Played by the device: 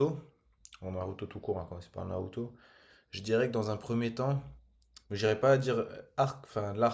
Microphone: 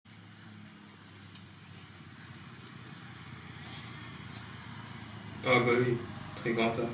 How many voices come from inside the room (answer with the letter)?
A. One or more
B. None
A